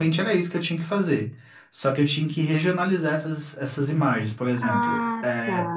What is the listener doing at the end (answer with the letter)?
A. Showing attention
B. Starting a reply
A